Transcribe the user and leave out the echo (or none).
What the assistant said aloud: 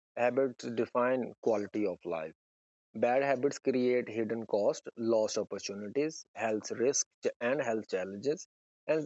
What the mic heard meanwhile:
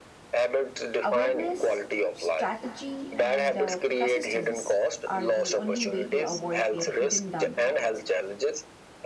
Awareness, strategy, and uh, persistence are the only way to avoid their hidden downfalls.